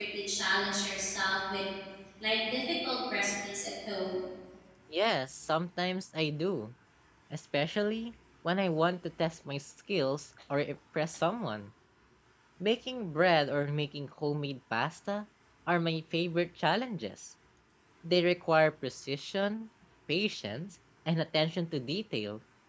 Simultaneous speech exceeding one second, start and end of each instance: none

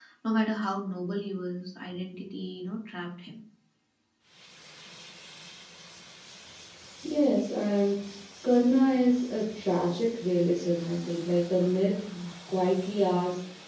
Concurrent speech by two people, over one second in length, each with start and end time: none

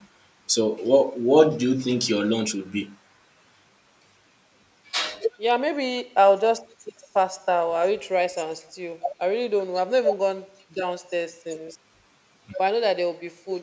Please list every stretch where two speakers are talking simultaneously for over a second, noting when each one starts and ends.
none

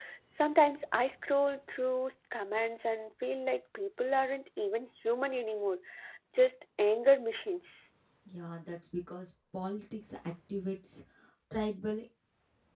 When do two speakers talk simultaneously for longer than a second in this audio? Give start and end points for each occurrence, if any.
none

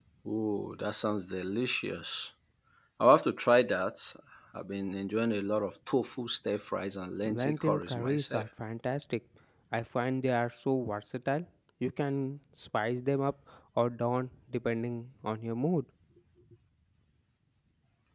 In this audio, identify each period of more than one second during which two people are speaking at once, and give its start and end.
7.2-8.4

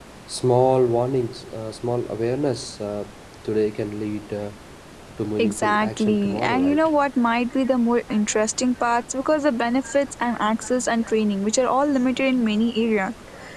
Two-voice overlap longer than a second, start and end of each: 5.4-6.9

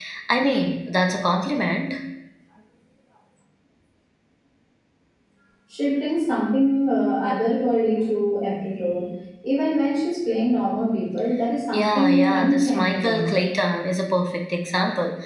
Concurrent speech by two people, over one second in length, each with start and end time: 11.7-13.4

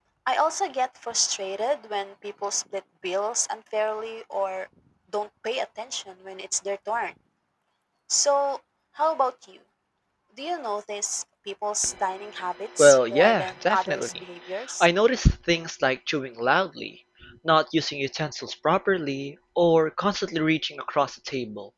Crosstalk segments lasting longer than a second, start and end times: 12.8-14.1

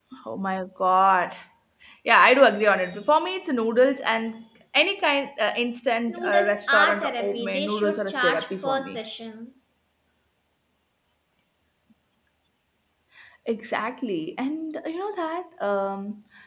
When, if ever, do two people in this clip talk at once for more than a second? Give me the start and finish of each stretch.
6.1-9.0

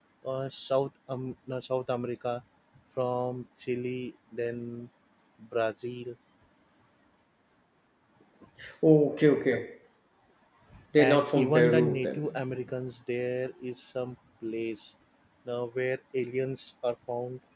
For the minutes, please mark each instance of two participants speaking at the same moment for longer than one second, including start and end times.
11.0-12.4

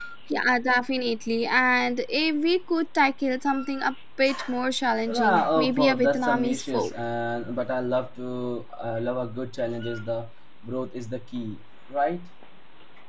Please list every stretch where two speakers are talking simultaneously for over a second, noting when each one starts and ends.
5.1-6.9

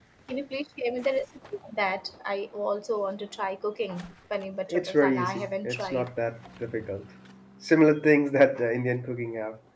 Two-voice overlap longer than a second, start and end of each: 4.7-6.1

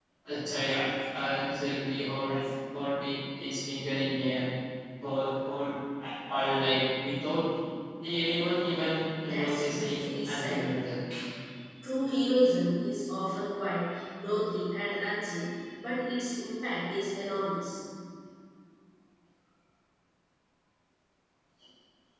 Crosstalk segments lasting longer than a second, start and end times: 9.2-10.7

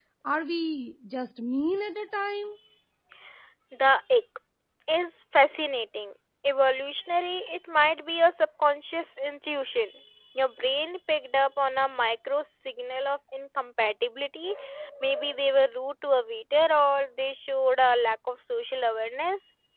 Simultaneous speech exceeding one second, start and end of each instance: none

